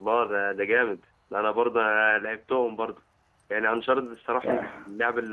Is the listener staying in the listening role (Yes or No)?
Yes